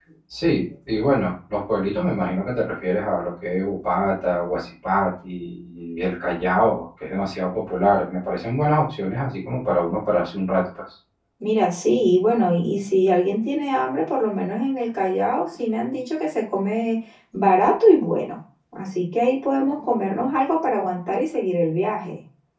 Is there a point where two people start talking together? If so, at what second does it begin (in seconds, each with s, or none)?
none